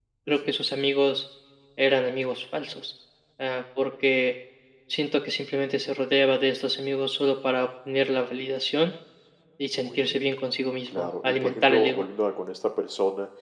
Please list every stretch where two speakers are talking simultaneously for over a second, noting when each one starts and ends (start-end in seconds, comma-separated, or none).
10.9-12.1